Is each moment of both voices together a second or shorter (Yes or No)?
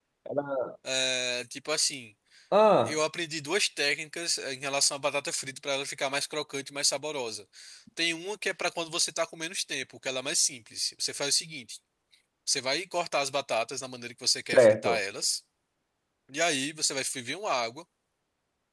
Yes